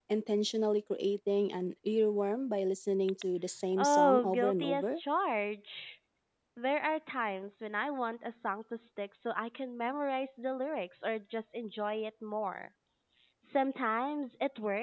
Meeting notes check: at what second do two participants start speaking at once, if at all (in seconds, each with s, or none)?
3.7 s